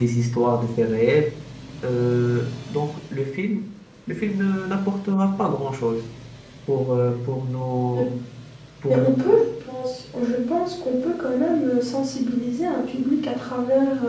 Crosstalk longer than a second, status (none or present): none